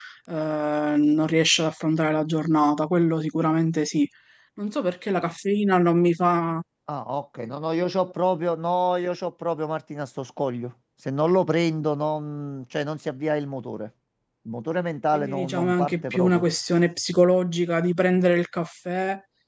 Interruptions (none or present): present